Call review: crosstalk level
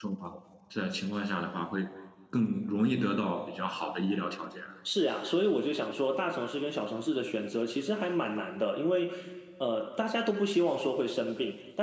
none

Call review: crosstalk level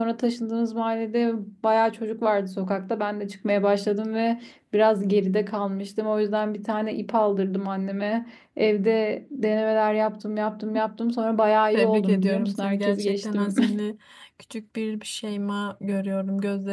present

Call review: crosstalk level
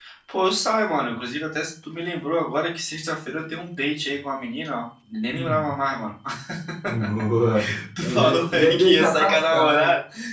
present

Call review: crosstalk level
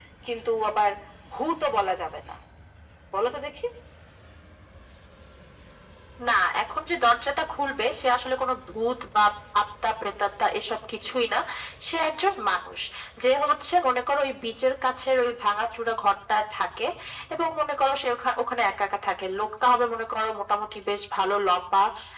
none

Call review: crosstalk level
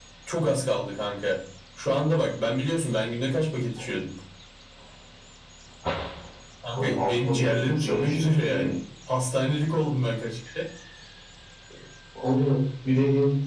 present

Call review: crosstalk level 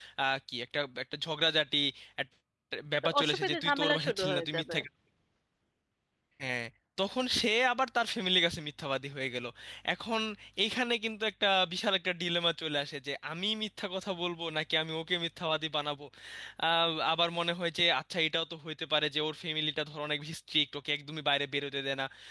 present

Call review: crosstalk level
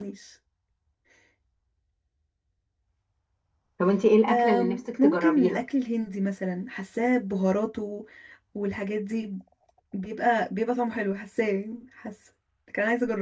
present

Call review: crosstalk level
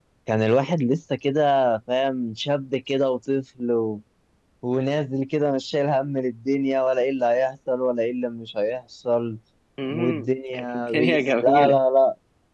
present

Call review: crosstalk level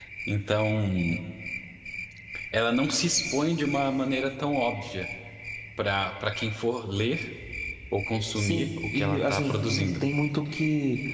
present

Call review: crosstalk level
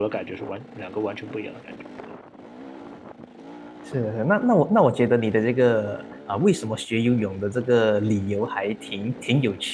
none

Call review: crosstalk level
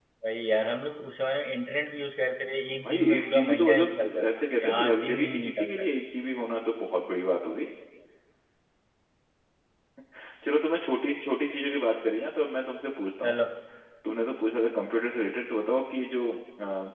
present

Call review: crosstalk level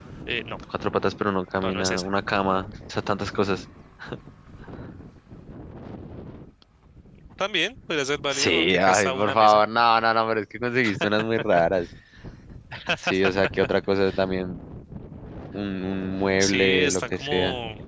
present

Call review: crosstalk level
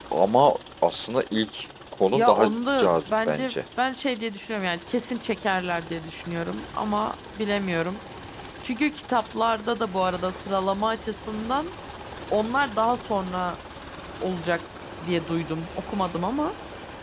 present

